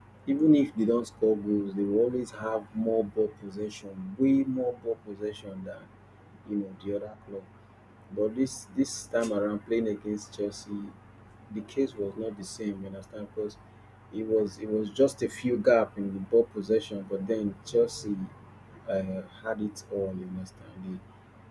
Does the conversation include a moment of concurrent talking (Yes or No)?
No